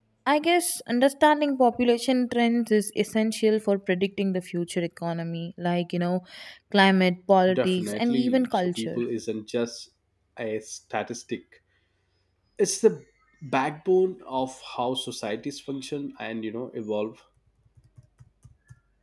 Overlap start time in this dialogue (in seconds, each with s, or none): 7.5 s